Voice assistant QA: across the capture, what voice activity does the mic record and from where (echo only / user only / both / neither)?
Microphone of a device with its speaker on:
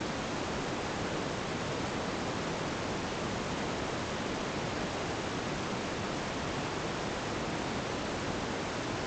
neither